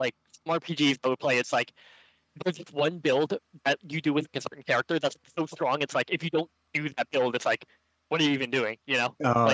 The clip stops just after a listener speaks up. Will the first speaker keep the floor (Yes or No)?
No